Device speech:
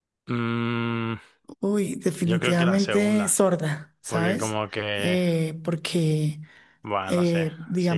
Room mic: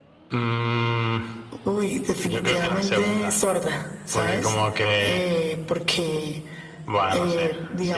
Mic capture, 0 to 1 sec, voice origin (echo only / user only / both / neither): echo only